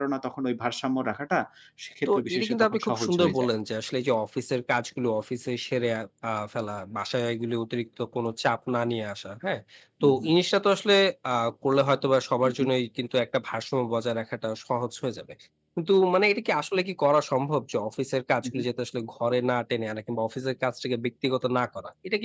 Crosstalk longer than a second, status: present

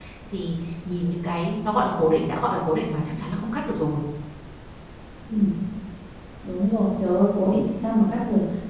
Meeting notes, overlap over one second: none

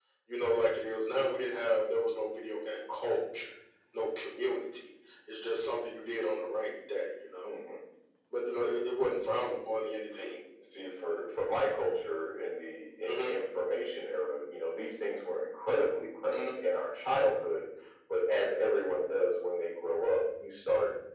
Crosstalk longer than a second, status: none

